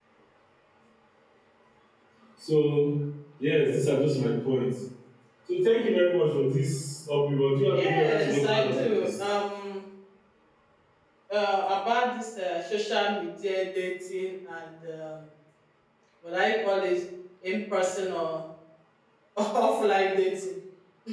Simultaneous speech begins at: 8 s

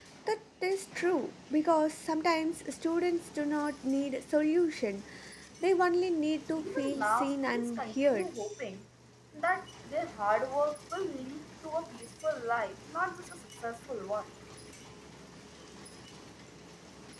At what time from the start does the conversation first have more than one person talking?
7 s

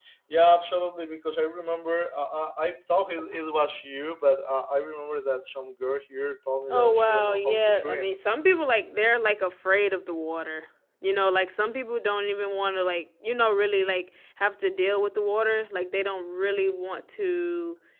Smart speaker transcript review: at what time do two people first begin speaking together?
7 s

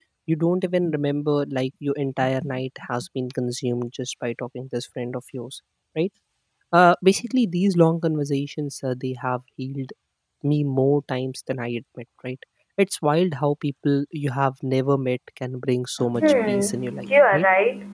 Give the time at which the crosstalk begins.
16 s

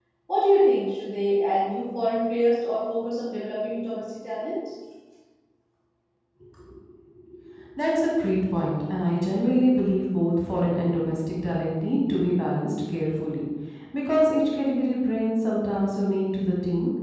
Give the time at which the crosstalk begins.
none

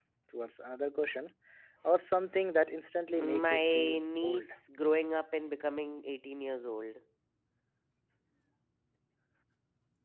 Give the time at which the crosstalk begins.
3 s

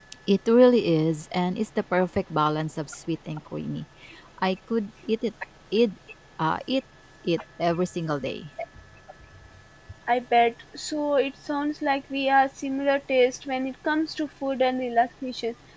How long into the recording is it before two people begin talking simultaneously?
none

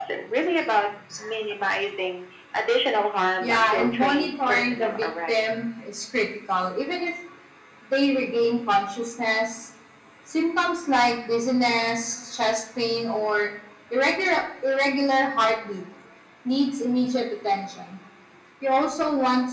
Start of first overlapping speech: 3 s

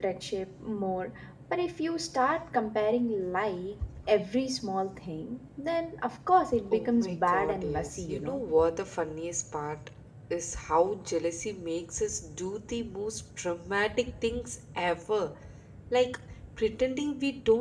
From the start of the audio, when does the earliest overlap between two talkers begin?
7 s

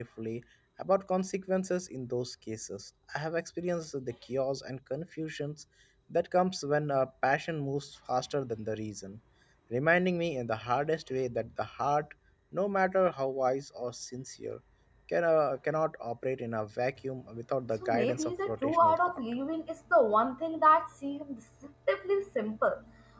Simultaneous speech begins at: 18 s

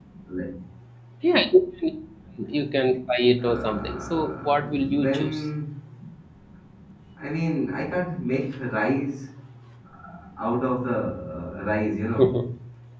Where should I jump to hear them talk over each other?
3 s

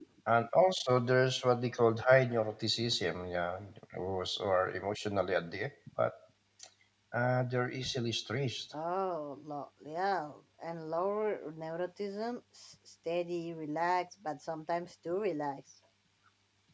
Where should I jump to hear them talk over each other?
none

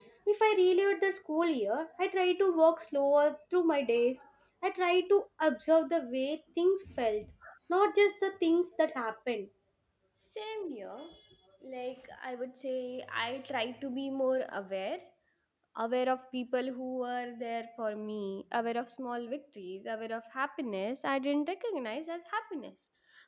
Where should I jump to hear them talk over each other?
none

